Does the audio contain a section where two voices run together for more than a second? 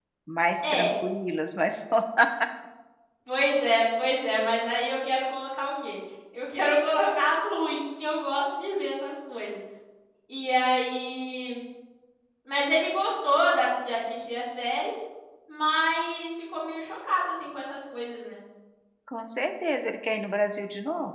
No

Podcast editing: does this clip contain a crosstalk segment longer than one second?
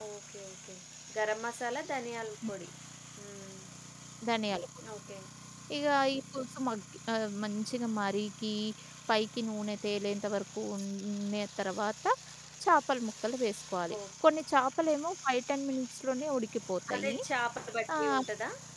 No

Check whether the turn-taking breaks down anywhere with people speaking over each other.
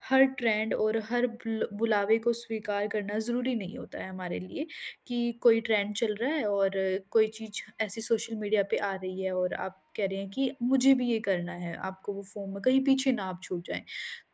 No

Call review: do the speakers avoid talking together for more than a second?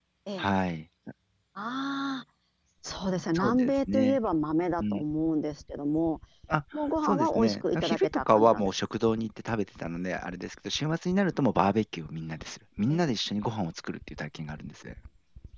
No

